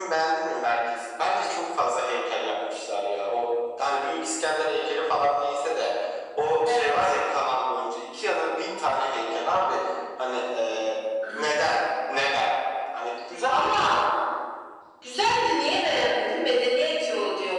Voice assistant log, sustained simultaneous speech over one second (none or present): none